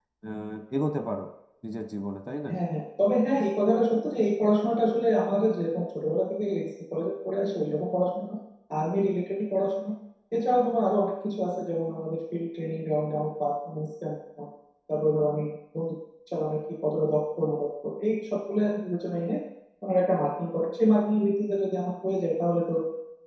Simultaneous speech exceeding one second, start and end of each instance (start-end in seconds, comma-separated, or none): none